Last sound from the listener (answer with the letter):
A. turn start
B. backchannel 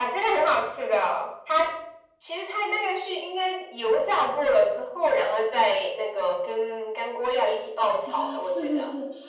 A